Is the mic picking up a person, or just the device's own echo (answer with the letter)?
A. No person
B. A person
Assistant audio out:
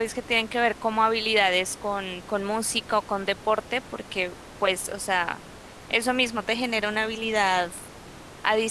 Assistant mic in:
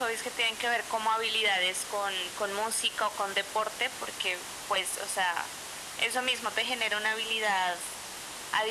A